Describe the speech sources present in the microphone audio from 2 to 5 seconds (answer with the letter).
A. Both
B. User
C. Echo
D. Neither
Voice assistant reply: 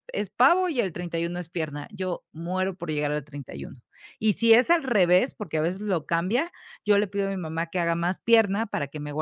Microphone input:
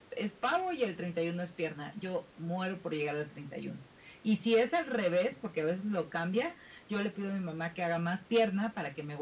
C